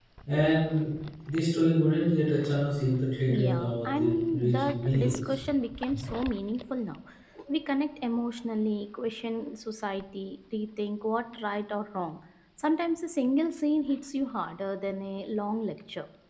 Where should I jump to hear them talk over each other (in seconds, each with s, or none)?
3.3 s